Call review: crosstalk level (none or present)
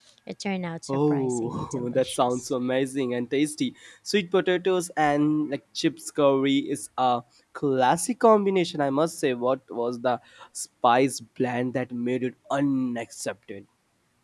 present